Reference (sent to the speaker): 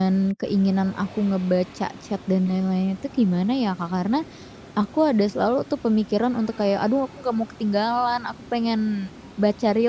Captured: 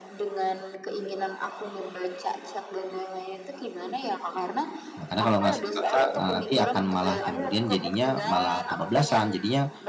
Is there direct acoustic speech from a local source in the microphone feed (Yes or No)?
Yes